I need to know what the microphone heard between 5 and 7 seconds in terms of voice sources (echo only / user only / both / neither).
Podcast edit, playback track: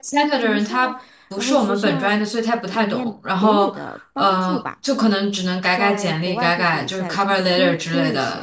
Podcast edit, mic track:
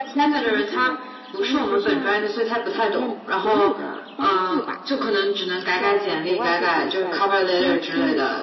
echo only